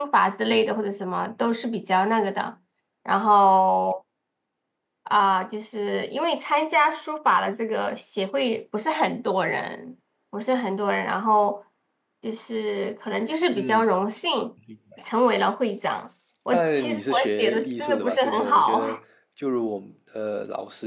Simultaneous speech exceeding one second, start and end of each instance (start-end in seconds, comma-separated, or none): 16.5-19.0